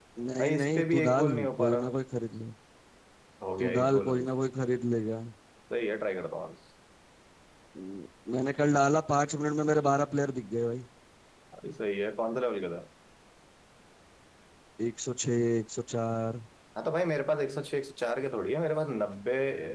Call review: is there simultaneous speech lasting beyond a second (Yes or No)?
Yes